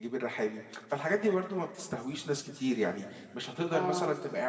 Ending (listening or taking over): listening